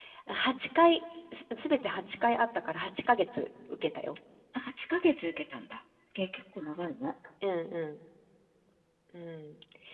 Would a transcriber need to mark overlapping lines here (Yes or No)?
No